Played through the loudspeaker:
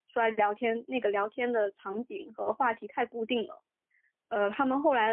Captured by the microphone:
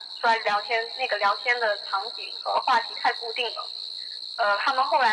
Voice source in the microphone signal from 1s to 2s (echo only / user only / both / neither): echo only